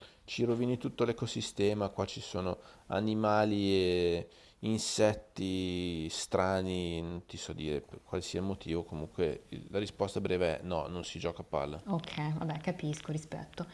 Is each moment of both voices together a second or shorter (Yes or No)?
Yes